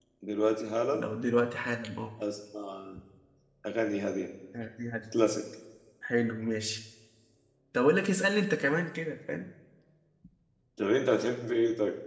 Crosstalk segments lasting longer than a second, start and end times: none

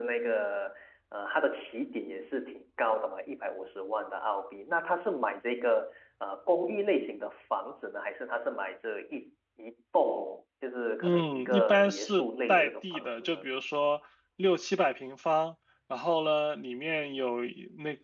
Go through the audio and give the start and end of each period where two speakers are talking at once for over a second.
11.0-13.5

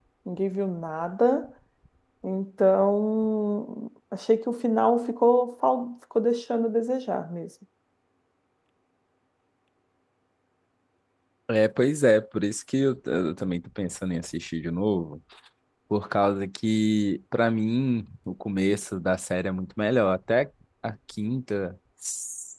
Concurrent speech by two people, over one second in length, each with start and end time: none

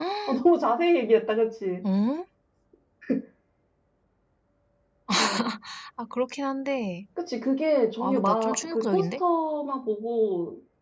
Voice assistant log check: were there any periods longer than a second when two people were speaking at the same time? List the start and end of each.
8.0-9.2

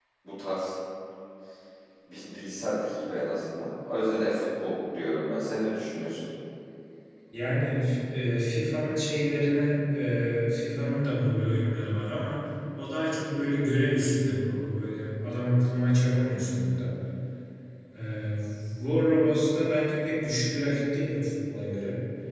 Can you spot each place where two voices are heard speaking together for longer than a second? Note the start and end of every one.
none

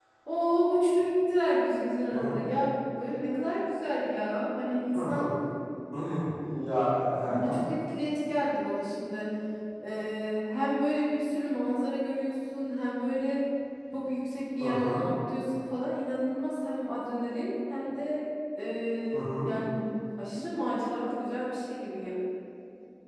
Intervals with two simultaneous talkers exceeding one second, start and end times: none

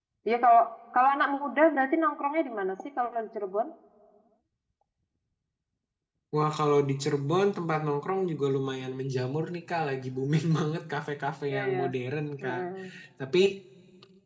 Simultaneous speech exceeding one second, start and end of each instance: none

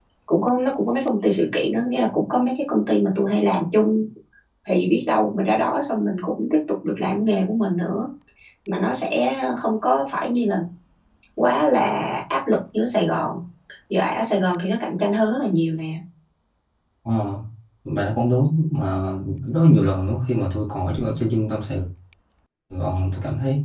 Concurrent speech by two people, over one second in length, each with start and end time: none

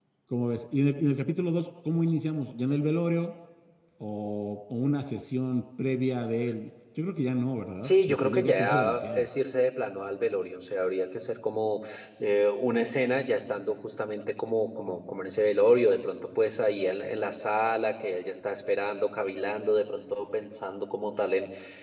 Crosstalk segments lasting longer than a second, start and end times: 7.8-9.2

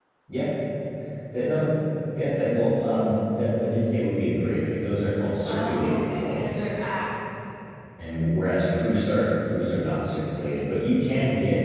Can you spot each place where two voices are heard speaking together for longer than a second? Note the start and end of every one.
5.5-6.7

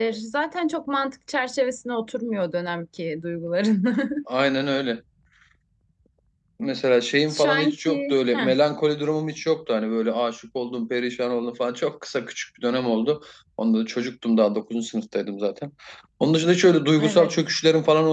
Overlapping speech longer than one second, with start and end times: 7.3-8.5

